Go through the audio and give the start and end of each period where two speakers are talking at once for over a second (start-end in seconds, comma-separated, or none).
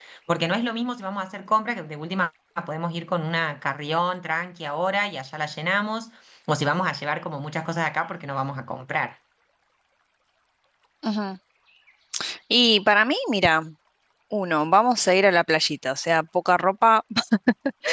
none